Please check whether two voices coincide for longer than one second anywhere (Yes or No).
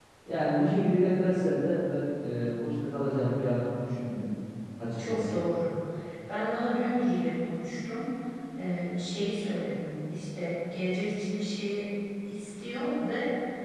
No